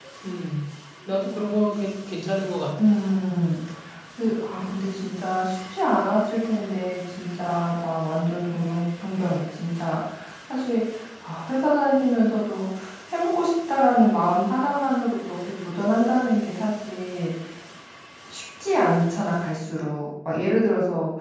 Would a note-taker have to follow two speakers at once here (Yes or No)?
No